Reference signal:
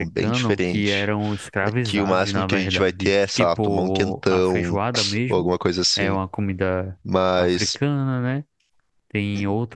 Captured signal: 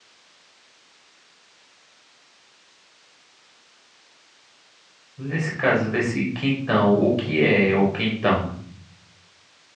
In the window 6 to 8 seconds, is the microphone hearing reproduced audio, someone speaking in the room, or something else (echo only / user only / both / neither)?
user only